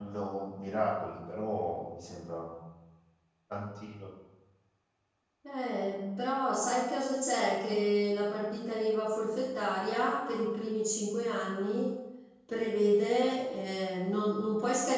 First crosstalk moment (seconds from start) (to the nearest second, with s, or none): none